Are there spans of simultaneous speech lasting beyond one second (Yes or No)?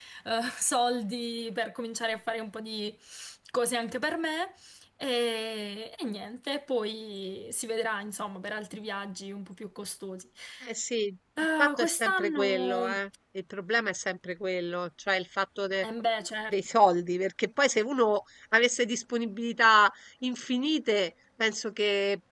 Yes